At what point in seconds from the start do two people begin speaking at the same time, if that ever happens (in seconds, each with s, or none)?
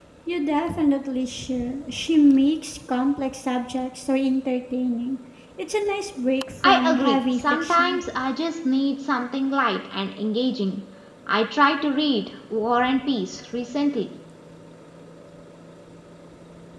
6.6 s